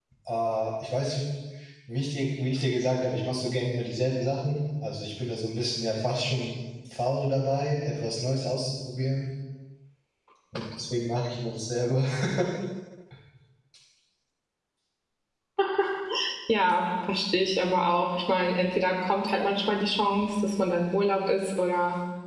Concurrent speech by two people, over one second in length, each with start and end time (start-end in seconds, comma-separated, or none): none